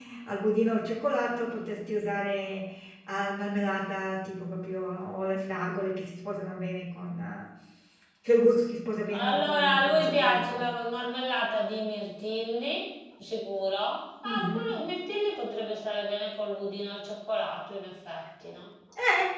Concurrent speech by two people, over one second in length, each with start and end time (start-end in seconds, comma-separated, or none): 9.1-10.7